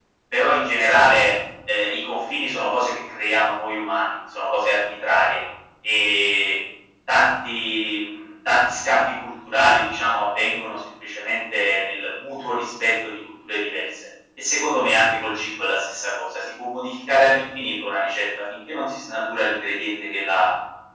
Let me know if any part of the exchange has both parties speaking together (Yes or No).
No